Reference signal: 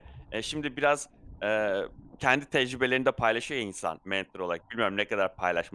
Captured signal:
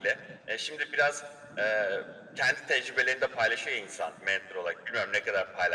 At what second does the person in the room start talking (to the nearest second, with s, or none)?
none